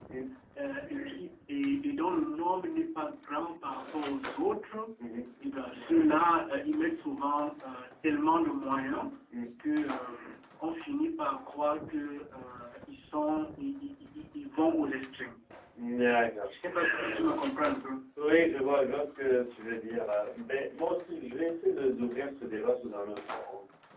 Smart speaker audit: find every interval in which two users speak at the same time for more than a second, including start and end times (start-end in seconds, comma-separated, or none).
none